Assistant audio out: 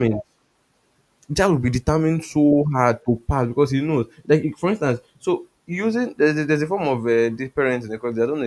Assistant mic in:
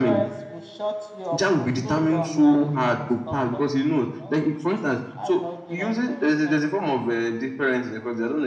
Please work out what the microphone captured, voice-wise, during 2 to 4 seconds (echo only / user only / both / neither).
both